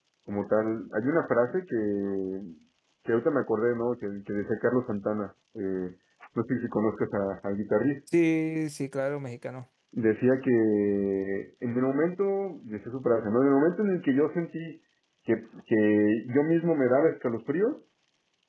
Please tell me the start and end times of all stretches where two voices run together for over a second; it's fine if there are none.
none

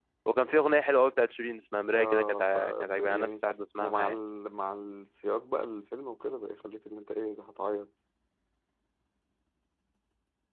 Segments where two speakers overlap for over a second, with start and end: 1.9-3.3

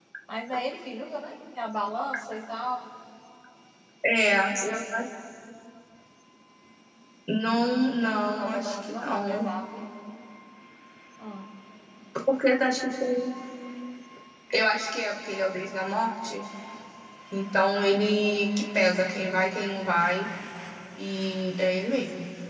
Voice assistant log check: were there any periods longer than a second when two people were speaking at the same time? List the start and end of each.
8.0-9.4

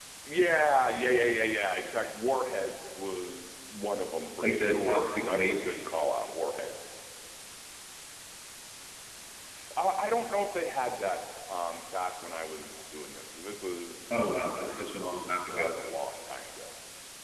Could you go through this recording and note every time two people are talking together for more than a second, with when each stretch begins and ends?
4.4-5.8, 14.1-15.7

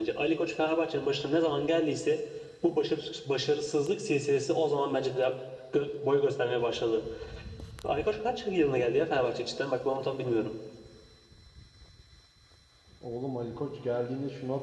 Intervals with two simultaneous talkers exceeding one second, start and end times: none

